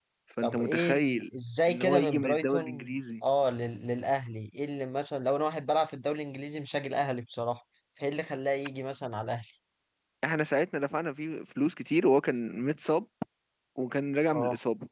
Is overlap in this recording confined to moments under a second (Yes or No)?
No